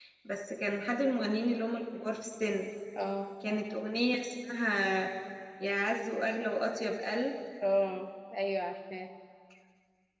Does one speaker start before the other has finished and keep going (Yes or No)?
No